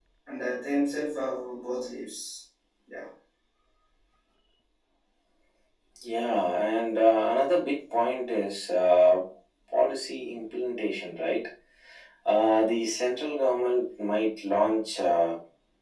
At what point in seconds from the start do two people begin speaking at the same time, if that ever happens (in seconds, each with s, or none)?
none